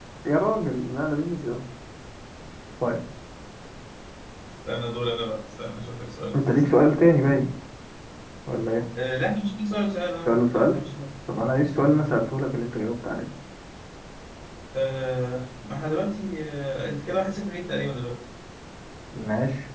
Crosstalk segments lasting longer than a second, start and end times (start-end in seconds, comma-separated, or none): none